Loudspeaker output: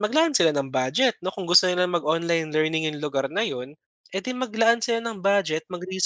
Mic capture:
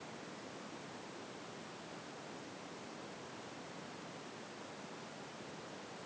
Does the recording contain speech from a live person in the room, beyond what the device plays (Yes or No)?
No